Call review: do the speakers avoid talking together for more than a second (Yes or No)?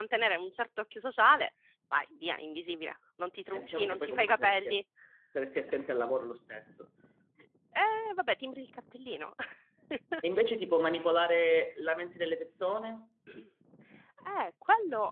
No